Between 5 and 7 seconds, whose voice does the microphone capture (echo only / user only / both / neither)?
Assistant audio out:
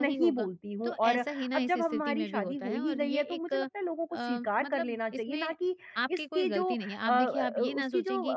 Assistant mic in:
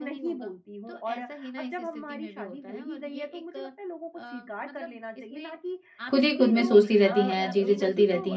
both